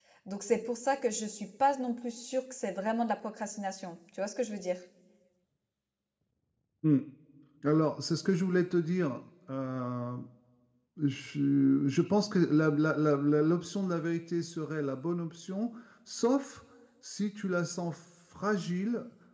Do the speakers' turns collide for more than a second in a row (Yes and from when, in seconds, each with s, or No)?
No